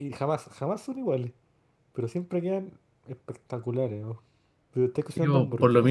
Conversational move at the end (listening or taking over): taking over